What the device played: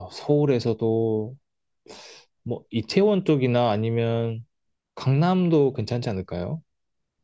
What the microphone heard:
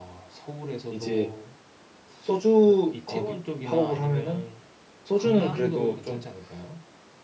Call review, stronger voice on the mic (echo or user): user